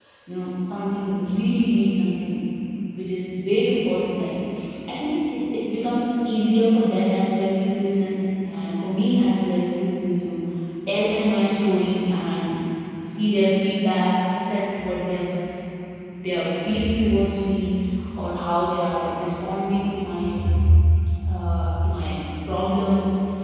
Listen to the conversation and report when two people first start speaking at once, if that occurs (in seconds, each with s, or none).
none